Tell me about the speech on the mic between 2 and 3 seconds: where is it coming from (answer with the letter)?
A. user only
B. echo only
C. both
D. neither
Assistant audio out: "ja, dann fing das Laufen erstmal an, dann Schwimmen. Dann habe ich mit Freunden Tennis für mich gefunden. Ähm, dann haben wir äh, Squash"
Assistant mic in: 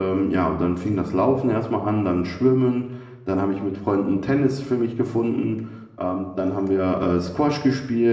B